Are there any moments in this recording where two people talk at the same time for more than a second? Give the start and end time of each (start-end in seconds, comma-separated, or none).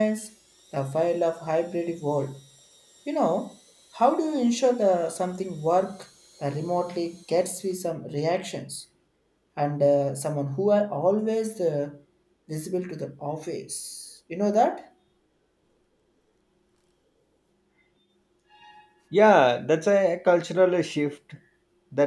none